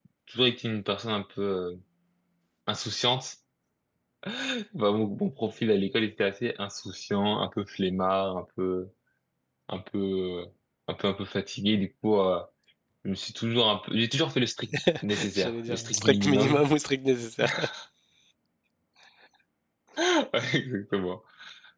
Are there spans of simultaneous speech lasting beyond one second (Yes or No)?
Yes